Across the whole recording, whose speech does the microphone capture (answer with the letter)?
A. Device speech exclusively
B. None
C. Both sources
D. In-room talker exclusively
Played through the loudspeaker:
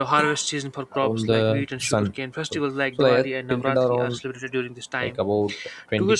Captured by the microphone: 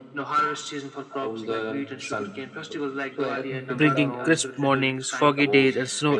C